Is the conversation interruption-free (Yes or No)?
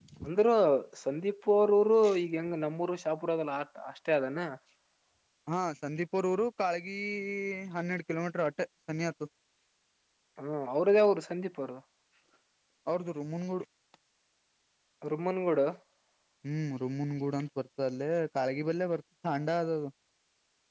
Yes